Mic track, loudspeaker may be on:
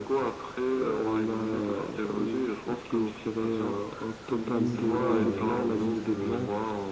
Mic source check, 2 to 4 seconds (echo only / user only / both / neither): echo only